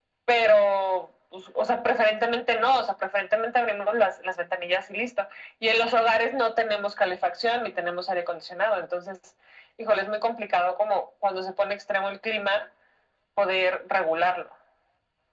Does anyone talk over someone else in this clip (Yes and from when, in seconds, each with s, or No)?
No